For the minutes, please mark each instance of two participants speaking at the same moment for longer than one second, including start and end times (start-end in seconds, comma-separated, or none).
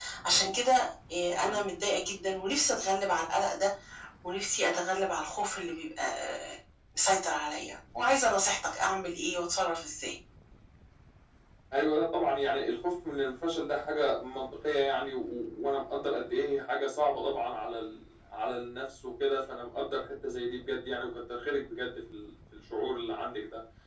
none